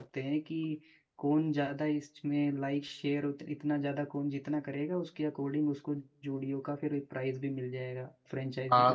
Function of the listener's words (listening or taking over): taking over